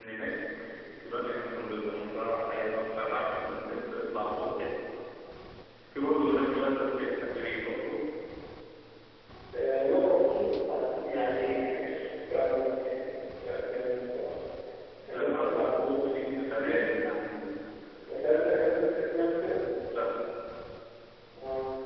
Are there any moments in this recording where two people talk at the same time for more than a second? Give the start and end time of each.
15.0-16.9

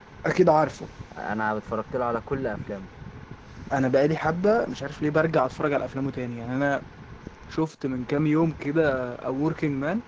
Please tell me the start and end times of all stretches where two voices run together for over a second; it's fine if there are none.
none

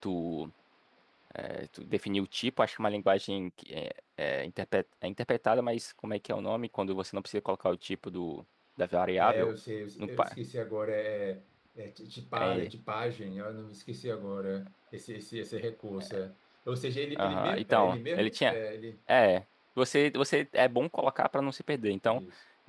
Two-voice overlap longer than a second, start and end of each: 17.2-18.6

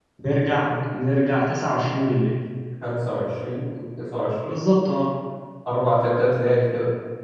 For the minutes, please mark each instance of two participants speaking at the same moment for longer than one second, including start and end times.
none

